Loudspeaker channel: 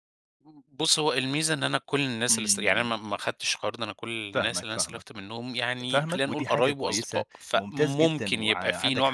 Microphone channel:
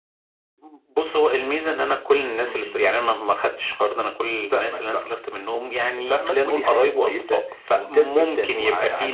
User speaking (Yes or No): No